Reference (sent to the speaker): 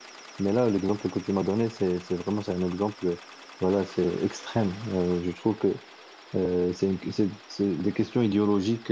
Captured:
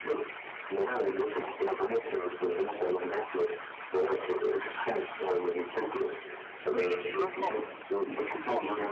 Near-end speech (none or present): present